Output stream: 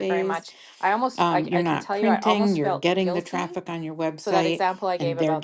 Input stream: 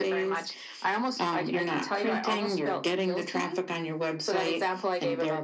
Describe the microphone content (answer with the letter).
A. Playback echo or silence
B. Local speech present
A